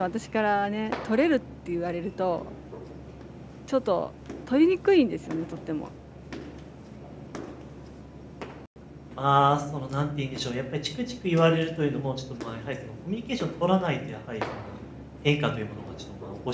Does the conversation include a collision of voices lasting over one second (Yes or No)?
No